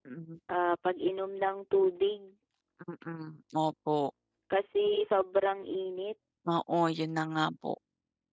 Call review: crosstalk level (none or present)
none